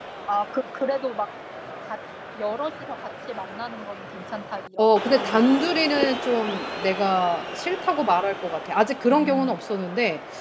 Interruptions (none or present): present